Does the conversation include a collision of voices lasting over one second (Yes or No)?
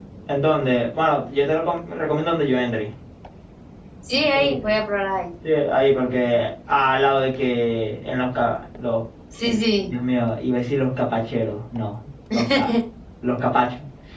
No